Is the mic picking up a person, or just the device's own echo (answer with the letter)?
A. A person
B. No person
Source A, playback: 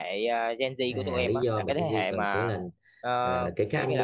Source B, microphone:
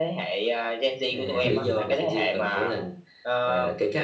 A